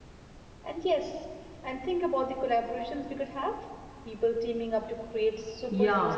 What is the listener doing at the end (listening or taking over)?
taking over